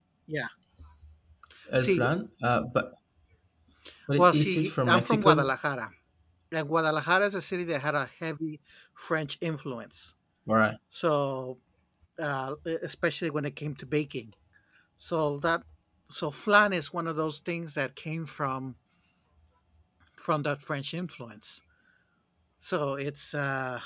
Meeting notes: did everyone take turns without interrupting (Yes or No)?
No